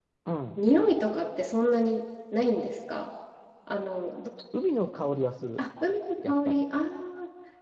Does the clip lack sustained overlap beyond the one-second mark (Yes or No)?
Yes